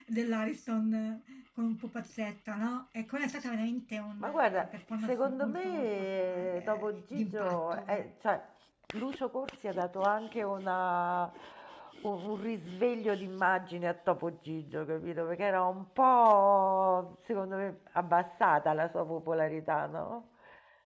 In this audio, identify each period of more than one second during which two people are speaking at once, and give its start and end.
4.2-8.1

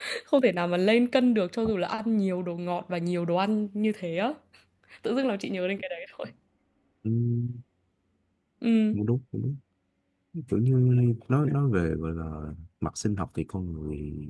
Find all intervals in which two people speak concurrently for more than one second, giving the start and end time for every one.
none

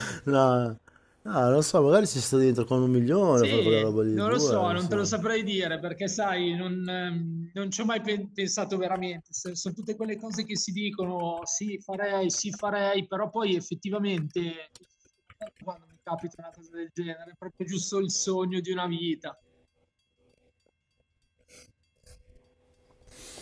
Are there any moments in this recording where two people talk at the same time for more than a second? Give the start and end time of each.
3.4-5.1

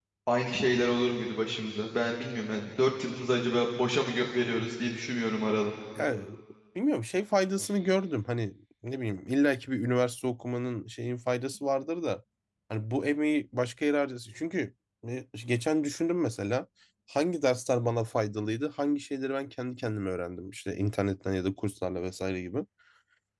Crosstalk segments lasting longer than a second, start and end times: none

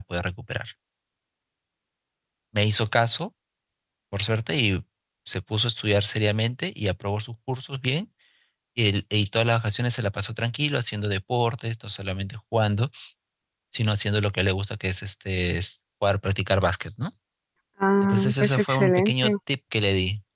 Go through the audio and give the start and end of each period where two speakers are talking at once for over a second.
18.0-19.3

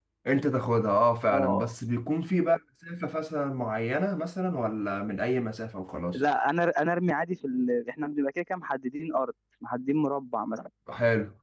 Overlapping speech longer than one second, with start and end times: none

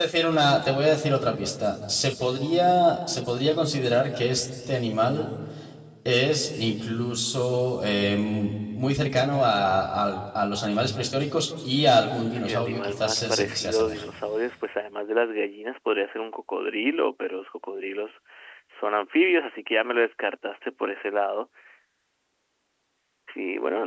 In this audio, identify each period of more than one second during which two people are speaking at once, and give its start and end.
12.3-14.0

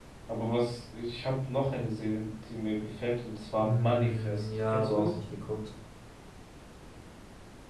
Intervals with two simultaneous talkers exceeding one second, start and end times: 3.6-5.1

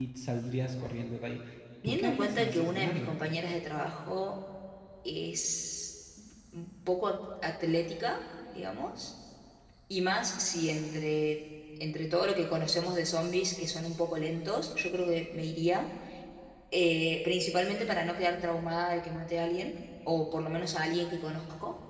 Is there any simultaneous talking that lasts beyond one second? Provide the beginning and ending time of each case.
1.8-3.1

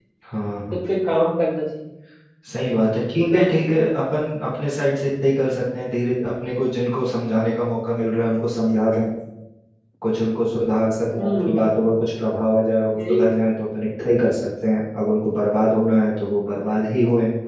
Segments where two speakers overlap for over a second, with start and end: none

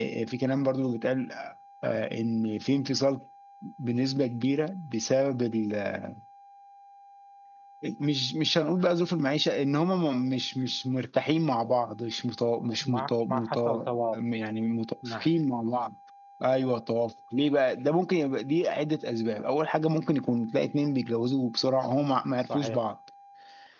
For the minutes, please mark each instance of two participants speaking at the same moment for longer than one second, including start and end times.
12.8-14.2

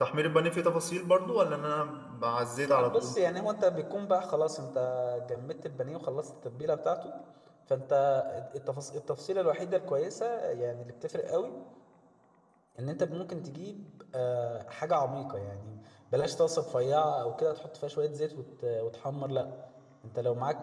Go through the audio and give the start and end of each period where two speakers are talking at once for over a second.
none

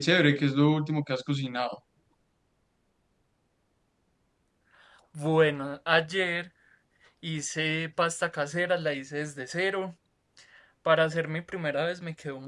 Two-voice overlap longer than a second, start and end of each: none

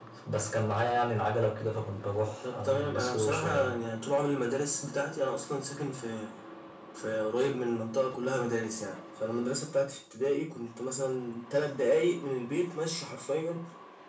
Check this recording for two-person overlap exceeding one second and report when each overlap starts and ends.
2.5-3.8

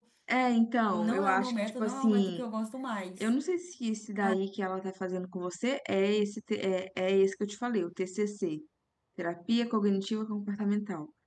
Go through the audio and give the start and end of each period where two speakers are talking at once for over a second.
0.9-2.4

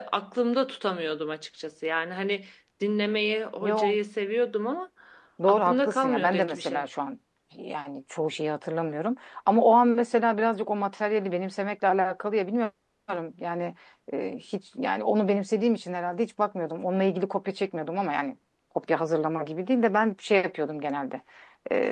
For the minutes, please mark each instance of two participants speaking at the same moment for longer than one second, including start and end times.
5.5-6.8

